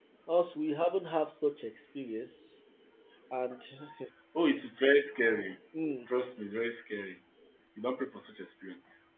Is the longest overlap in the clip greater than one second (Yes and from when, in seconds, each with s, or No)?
No